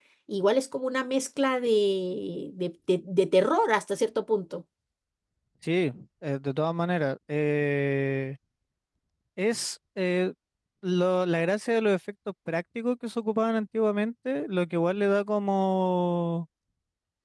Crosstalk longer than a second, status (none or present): none